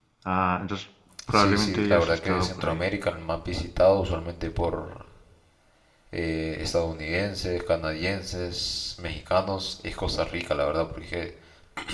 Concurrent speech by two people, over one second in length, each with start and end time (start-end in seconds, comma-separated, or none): 1.3-2.8